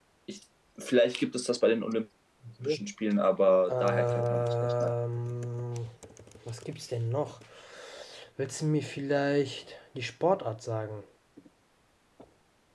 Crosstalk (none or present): present